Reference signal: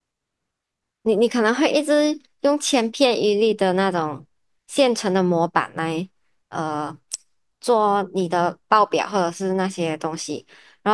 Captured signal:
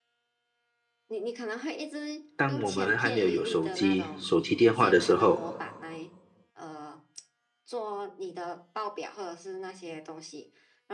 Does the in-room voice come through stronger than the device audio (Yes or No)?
Yes